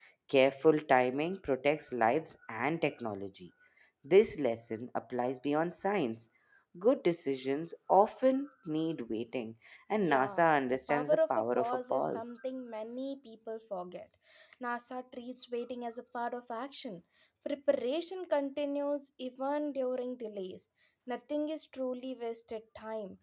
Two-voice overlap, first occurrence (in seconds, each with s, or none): 10.0 s